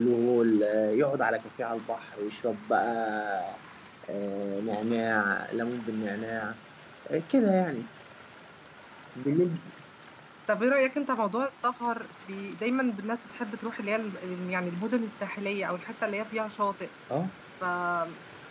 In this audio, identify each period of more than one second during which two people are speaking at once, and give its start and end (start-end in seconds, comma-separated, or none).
none